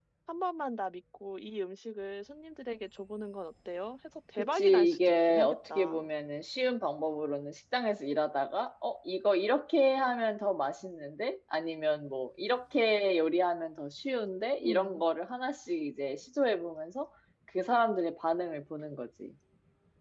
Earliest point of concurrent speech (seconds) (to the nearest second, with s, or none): 4 s